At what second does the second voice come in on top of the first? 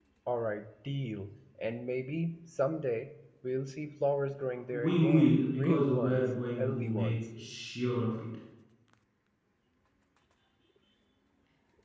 4.7 s

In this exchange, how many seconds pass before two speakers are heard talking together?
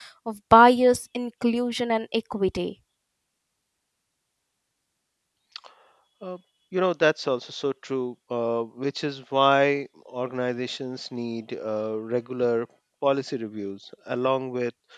none

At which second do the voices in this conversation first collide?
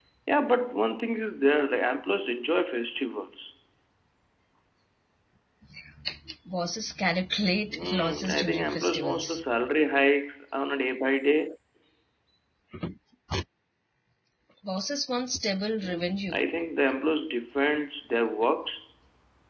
7.7 s

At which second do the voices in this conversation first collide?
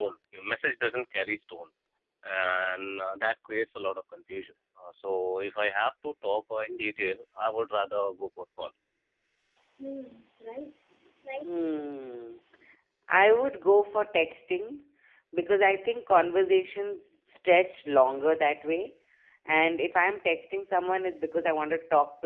none

